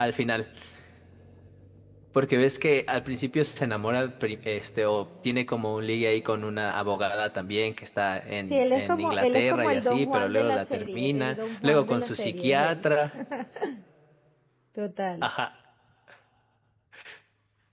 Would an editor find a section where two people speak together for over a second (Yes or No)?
Yes